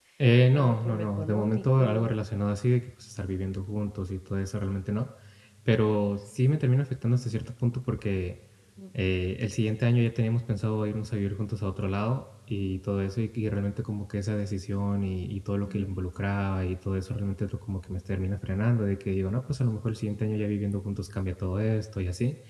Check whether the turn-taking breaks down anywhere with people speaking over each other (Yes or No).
Yes